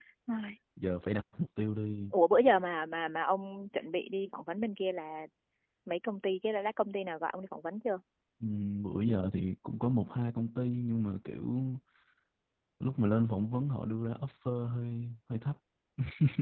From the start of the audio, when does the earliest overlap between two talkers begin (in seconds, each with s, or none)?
none